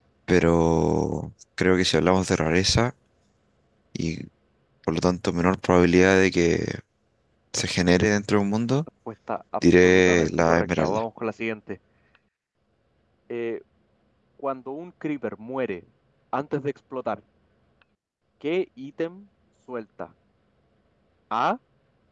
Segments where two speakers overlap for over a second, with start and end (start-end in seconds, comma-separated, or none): 9.8-11.0